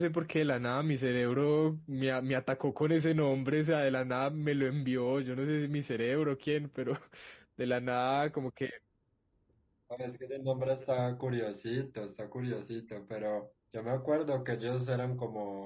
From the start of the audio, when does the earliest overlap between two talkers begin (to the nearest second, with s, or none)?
none